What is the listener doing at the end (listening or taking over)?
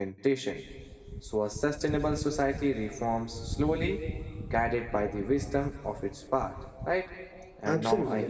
listening